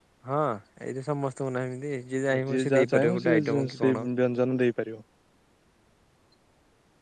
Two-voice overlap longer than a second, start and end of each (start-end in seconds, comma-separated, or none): 2.3-4.0